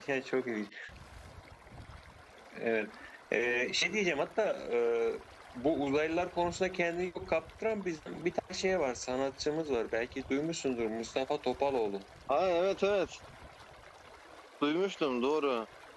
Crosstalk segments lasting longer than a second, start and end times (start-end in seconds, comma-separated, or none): none